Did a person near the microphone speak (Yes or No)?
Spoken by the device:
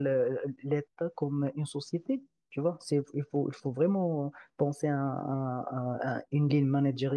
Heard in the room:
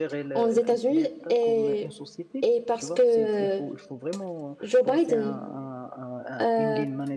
Yes